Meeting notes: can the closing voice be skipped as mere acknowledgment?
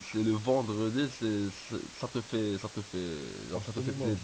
No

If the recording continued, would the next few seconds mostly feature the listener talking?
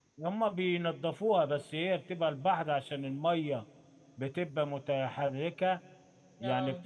No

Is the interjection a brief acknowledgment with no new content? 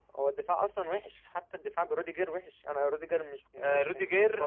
No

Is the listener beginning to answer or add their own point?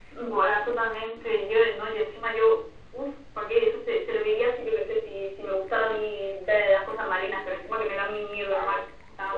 Yes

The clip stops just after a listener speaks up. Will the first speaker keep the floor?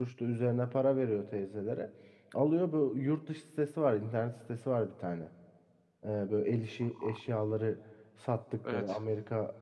Yes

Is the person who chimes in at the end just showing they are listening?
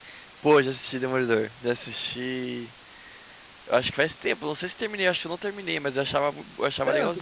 No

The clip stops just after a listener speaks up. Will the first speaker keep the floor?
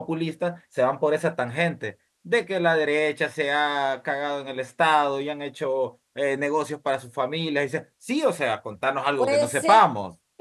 No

